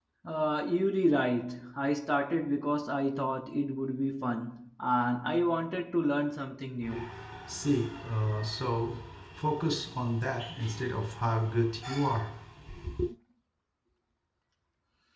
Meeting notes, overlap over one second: none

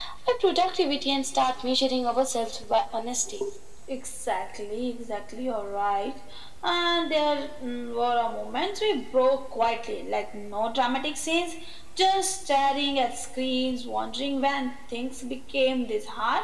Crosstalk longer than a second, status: none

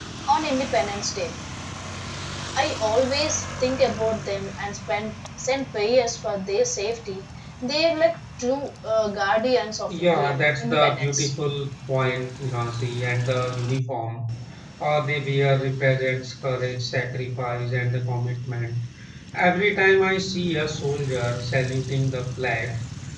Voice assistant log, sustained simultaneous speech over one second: present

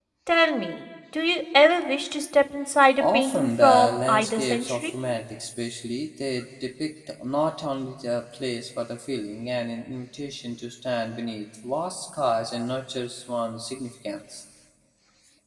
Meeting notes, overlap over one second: present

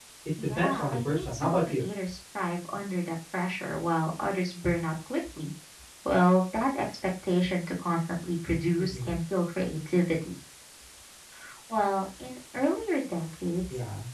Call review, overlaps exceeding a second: present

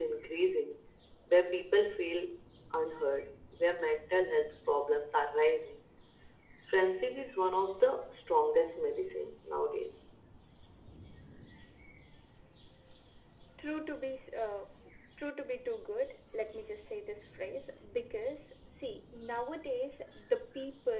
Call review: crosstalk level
none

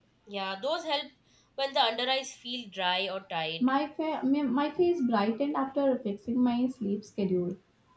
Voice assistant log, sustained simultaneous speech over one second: none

